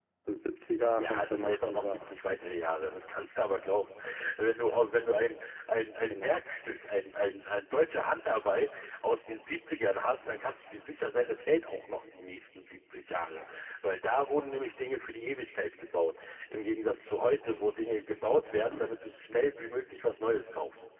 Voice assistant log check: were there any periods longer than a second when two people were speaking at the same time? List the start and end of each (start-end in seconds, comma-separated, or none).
1.0-2.2